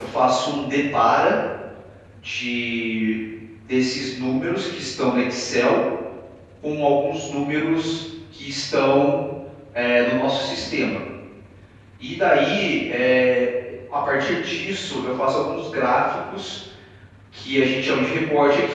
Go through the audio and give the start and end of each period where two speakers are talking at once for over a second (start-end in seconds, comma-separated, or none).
none